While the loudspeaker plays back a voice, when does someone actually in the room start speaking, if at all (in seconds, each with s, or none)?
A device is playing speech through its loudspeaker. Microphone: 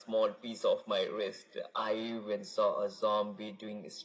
none